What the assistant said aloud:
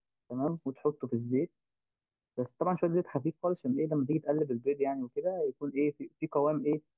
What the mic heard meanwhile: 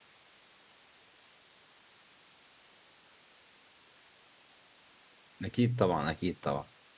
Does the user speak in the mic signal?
Yes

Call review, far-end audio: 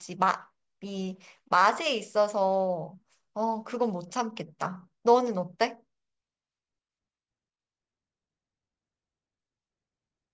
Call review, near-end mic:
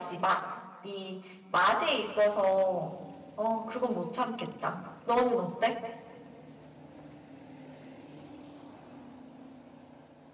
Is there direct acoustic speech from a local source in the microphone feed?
No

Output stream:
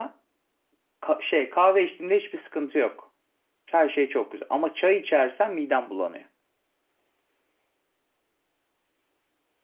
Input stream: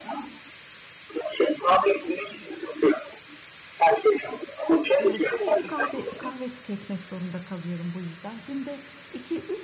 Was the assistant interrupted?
Yes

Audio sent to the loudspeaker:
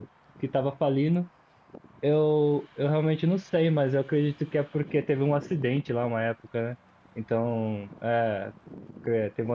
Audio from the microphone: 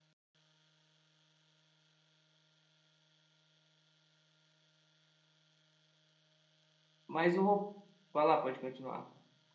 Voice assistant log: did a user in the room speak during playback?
Yes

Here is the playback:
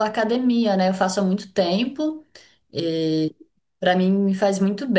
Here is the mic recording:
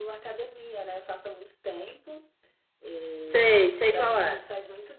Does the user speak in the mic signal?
Yes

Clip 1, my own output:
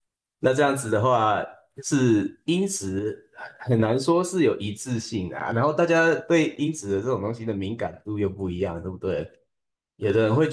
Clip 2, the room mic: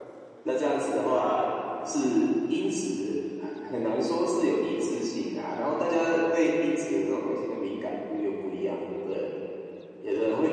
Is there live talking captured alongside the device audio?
No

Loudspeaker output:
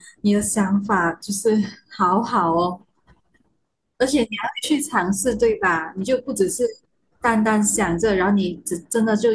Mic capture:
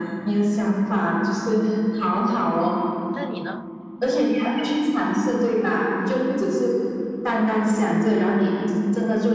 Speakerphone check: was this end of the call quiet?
No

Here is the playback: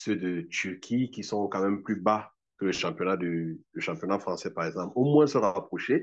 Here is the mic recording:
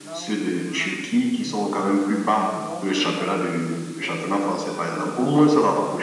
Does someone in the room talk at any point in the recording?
Yes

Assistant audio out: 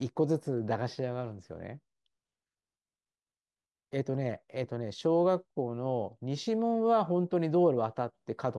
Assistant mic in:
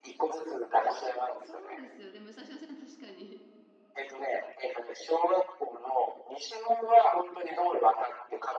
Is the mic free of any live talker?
No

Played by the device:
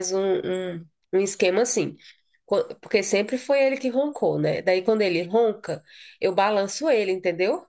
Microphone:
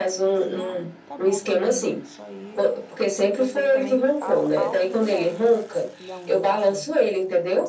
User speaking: Yes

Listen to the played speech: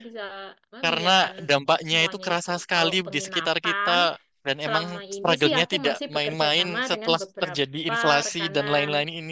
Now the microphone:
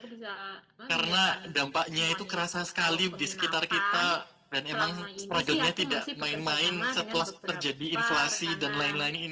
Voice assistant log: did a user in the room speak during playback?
No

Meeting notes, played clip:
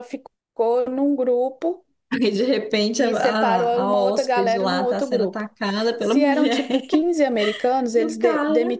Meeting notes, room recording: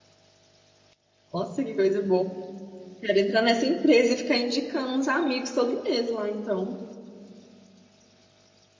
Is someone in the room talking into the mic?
Yes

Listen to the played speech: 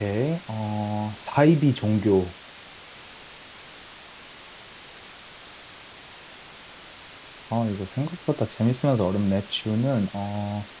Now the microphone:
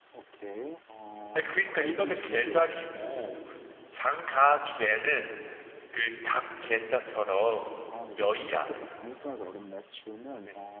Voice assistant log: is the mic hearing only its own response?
No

